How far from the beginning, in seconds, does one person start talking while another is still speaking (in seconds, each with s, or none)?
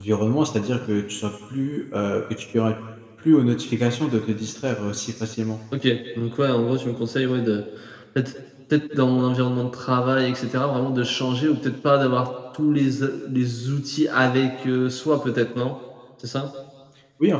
none